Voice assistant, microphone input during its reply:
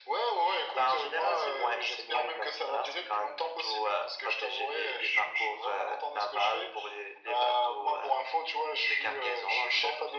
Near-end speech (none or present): none